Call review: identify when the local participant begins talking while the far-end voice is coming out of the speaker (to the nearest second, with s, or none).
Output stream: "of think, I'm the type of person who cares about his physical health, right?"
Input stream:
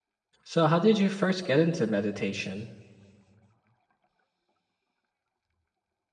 0 s